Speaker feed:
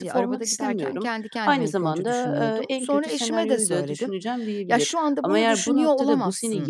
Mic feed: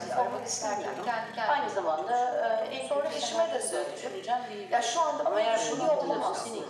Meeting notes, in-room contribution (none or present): present